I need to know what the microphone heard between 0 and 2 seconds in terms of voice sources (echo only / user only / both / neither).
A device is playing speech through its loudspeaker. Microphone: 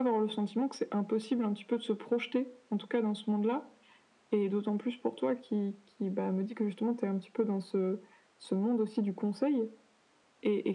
echo only